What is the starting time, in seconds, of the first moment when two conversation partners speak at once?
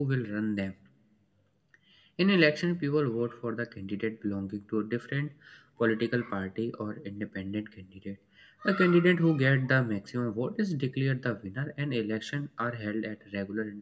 none

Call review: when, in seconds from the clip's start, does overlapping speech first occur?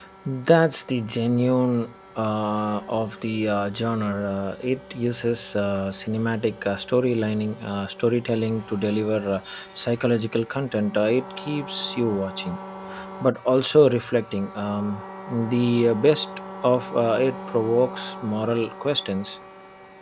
none

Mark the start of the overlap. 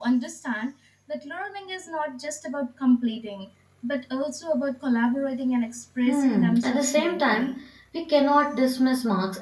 6.0 s

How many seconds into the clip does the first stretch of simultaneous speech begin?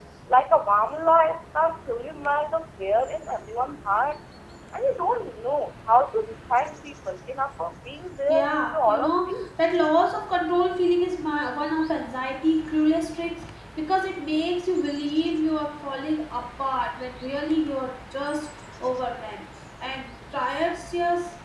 8.3 s

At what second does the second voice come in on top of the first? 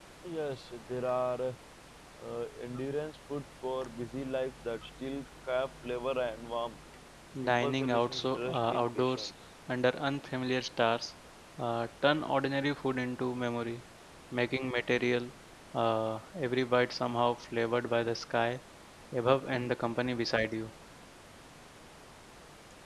7.4 s

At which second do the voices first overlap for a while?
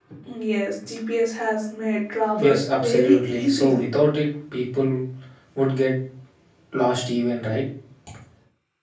2.4 s

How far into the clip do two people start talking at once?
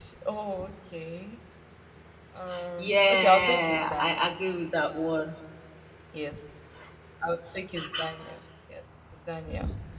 2.8 s

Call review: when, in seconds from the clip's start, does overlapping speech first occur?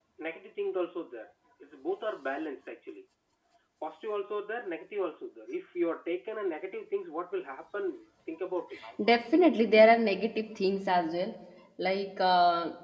none

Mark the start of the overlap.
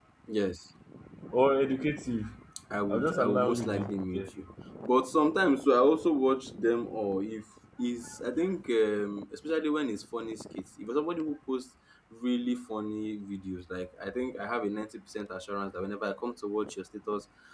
2.9 s

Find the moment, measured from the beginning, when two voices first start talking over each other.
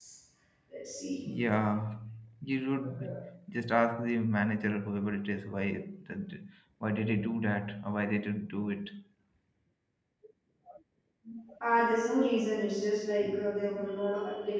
none

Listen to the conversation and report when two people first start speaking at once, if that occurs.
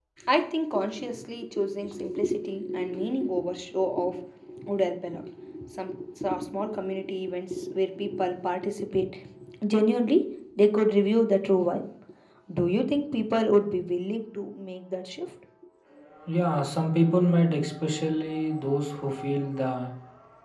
none

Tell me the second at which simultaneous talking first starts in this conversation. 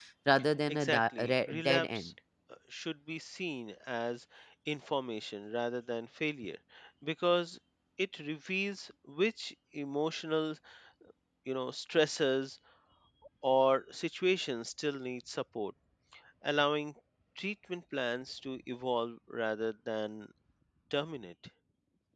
0.7 s

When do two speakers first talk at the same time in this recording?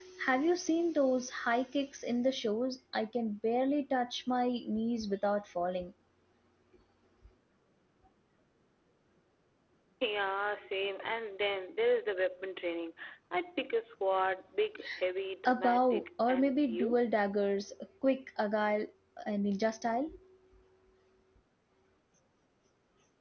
15.4 s

